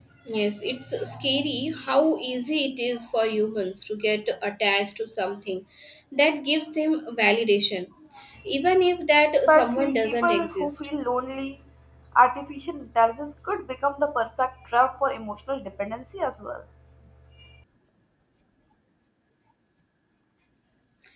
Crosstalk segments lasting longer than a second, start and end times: 9.3-10.9

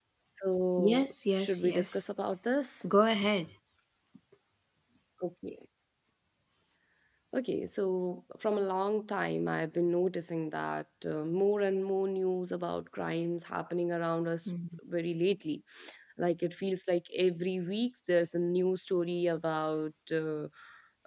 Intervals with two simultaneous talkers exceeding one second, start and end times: 0.8-2.1

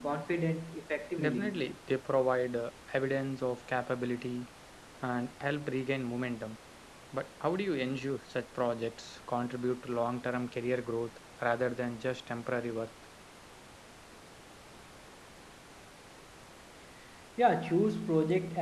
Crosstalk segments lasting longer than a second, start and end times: none

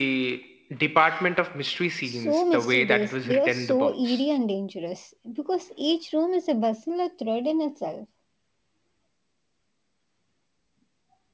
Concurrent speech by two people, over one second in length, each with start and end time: 2.0-4.2

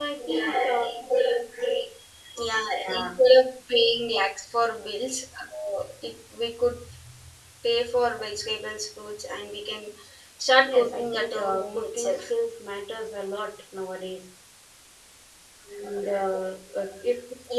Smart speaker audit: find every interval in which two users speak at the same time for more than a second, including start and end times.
10.7-12.2

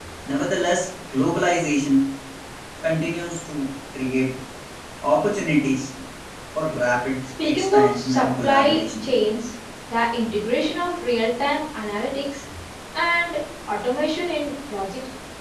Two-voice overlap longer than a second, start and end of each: 7.4-9.1

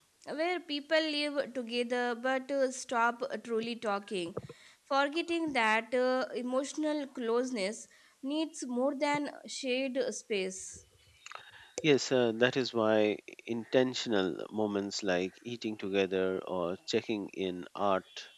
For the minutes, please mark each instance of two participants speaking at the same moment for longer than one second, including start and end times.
none

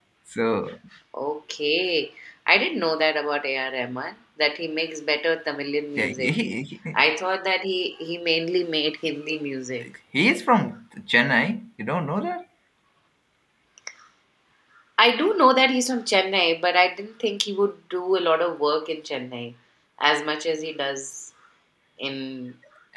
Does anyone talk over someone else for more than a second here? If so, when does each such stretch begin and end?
none

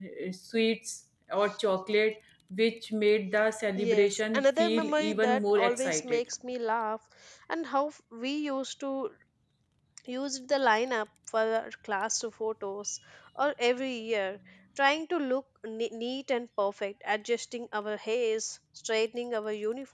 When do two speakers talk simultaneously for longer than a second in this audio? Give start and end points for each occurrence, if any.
3.9-6.2

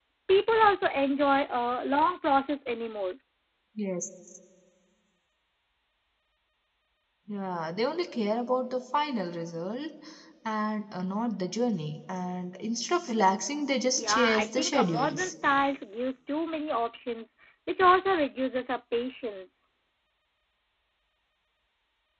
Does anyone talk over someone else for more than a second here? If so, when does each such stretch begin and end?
14.0-15.3

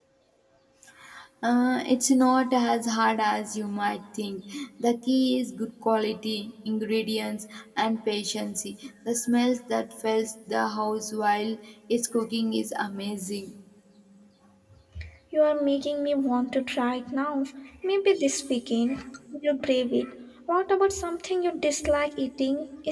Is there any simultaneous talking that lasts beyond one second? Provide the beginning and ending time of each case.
none

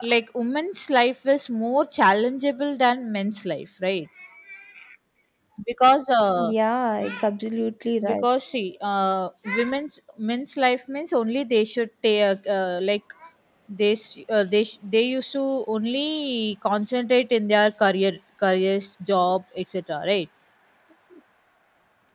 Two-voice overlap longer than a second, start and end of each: none

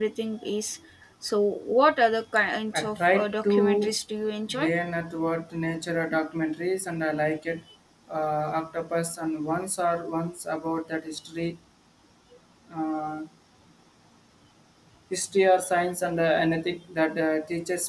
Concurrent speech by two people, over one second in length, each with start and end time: 2.7-4.0

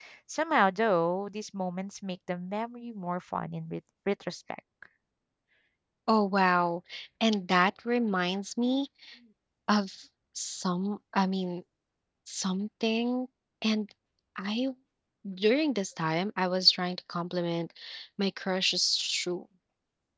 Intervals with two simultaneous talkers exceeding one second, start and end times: none

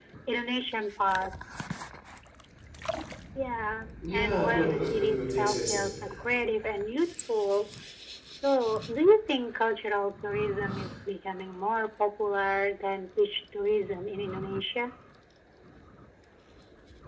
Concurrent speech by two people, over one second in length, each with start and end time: 4.1-5.9

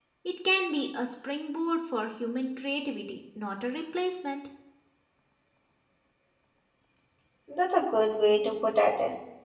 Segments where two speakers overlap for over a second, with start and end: none

